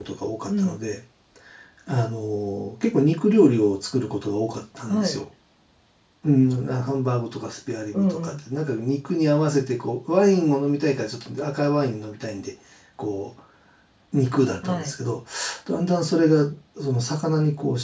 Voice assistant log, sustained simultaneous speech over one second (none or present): none